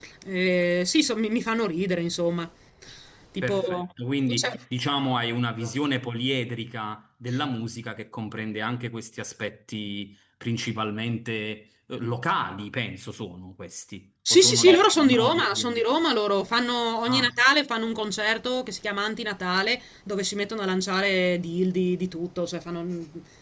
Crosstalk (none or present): present